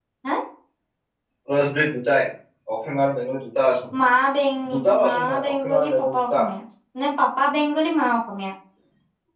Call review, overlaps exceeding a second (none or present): present